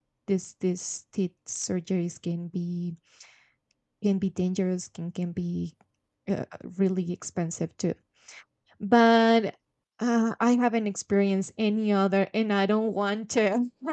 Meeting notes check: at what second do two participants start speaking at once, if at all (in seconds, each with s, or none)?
none